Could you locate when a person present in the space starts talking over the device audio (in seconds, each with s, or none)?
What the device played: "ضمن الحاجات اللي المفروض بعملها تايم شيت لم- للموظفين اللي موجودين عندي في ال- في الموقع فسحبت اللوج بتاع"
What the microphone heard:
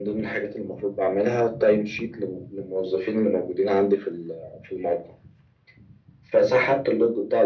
none